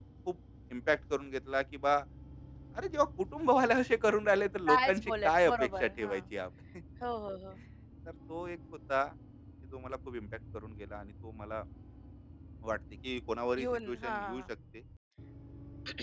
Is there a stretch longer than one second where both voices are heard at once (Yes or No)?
Yes